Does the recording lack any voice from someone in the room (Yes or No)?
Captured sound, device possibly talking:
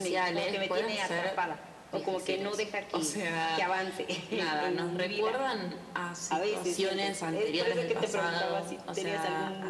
Yes